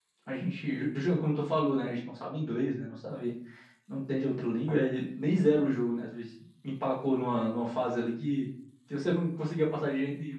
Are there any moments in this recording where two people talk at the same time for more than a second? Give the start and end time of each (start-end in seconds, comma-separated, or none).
none